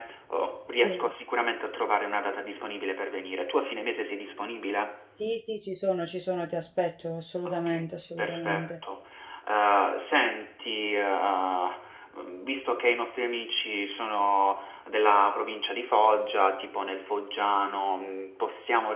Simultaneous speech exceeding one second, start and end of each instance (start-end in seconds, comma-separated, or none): 7.5-8.7